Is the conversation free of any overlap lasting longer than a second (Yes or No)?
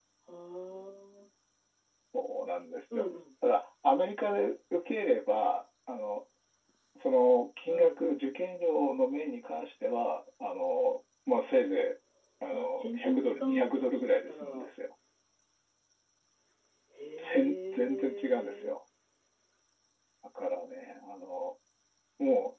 No